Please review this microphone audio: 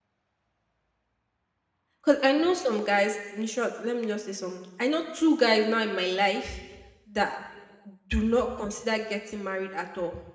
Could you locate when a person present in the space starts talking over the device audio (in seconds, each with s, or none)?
2.0 s